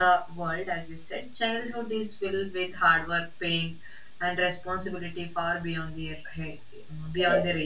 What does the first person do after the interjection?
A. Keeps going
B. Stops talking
A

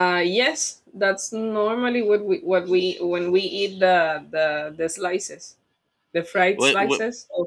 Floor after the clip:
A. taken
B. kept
B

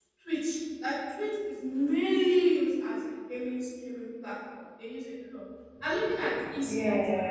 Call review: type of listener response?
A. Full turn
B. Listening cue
B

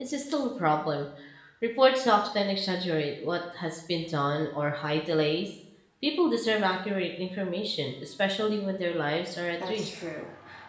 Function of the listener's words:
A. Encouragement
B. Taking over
B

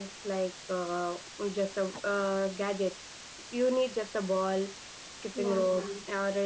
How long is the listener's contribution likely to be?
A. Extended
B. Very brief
B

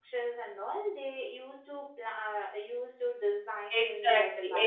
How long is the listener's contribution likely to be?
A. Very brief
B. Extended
B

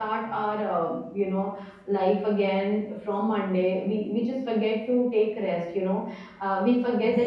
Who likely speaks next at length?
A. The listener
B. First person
B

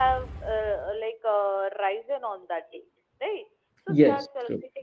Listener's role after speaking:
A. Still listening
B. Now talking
A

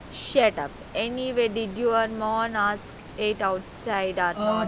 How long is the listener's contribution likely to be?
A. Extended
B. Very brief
A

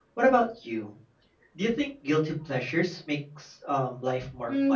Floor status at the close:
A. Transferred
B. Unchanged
A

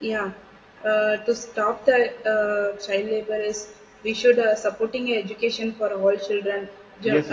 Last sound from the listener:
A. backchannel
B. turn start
B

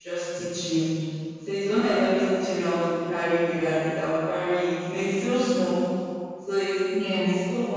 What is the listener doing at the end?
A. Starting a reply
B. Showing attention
B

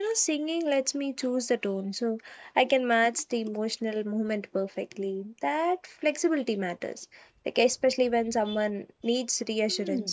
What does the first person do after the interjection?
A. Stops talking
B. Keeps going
A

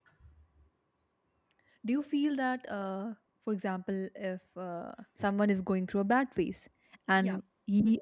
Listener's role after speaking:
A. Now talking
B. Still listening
B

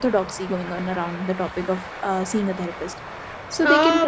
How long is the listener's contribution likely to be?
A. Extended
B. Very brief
A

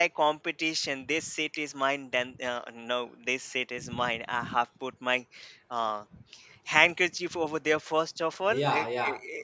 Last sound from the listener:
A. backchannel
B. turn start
B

